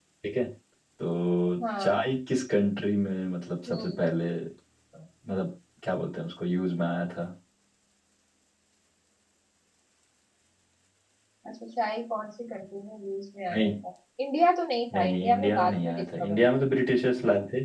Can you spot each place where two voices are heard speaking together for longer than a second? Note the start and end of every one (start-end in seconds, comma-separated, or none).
14.9-16.5